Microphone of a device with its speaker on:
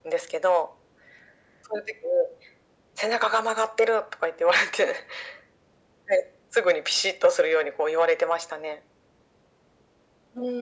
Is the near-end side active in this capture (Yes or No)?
No